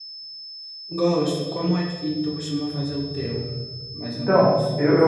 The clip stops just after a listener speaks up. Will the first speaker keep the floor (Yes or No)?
No